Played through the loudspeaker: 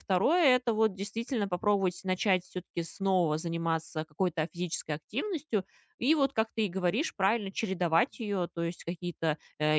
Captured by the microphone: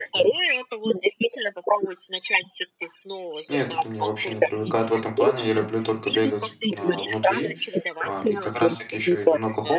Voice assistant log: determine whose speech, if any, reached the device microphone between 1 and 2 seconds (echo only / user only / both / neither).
echo only